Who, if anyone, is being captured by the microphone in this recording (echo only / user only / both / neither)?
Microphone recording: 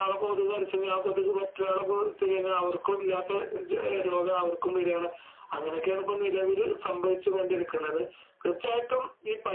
echo only